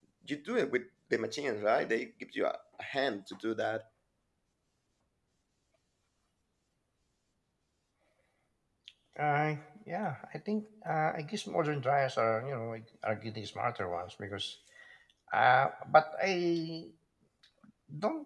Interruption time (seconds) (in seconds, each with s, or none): none